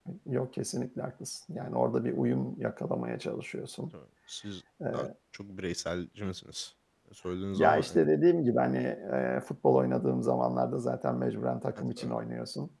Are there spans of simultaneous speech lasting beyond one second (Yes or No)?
No